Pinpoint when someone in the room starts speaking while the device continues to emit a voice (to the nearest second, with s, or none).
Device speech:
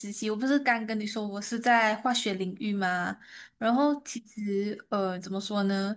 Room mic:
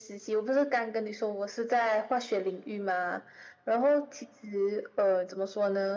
none